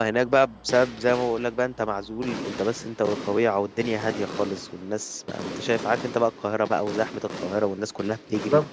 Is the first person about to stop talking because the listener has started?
No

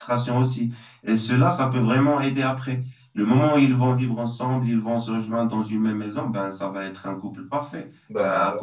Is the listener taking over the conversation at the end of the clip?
No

